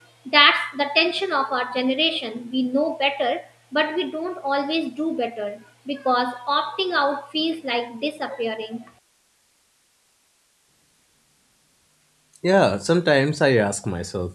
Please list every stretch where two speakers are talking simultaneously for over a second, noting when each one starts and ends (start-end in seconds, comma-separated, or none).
none